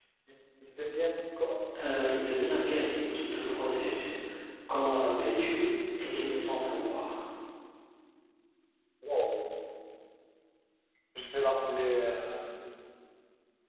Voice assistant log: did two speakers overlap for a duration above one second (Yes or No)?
No